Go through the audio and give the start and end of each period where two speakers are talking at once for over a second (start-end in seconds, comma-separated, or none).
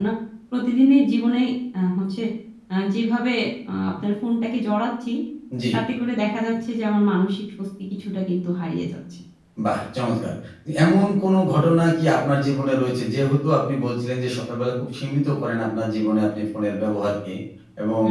none